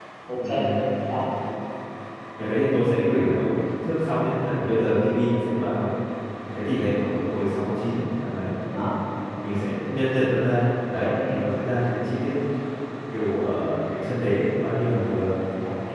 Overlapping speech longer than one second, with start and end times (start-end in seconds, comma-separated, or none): none